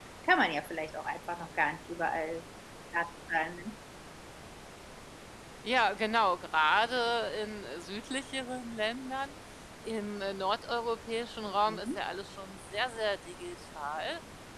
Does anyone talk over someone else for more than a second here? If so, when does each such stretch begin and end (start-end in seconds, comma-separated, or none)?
none